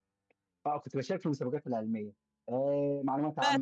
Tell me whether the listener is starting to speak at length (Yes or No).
No